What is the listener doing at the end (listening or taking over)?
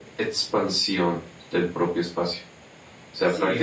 taking over